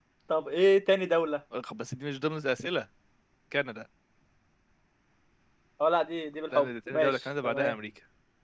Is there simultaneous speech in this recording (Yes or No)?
Yes